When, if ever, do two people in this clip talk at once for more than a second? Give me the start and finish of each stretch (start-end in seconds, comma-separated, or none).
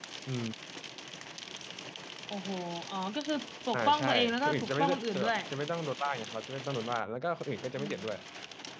3.7-5.4